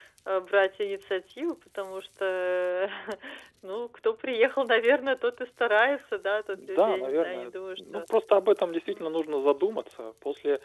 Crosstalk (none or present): present